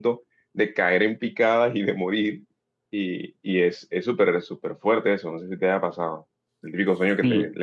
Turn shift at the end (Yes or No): Yes